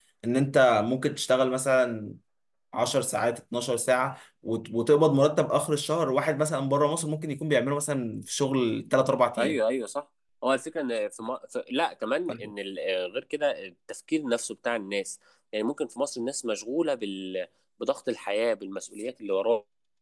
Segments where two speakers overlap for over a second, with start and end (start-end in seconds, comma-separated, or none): none